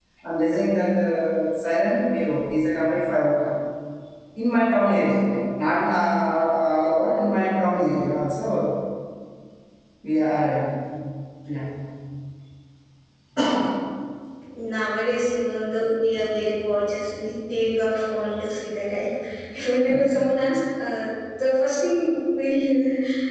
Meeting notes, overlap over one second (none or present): none